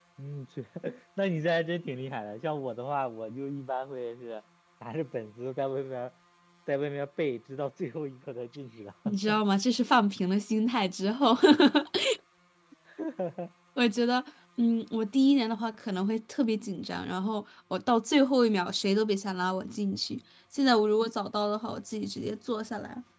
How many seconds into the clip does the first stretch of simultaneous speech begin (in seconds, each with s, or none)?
none